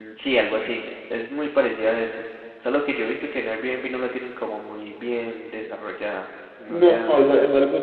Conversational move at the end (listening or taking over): taking over